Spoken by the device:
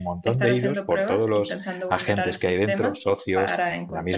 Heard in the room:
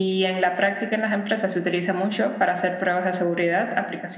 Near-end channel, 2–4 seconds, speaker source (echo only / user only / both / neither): user only